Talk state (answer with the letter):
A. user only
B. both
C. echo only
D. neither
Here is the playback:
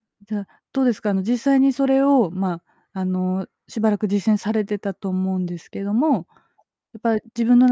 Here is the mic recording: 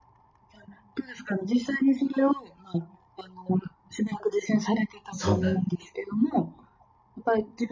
B